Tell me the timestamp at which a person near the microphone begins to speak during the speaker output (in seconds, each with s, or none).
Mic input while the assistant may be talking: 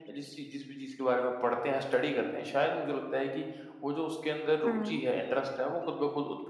4.6 s